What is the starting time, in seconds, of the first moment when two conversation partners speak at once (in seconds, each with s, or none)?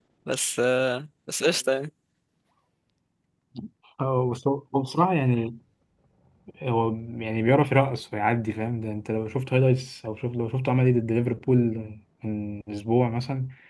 none